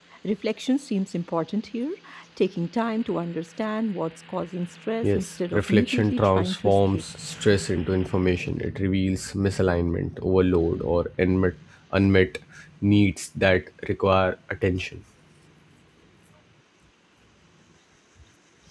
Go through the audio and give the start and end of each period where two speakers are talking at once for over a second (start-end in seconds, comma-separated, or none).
5.0-7.0